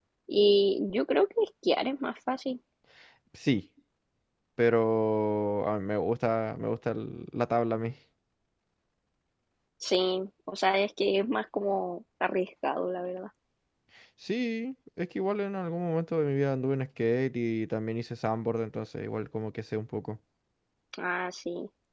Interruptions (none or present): none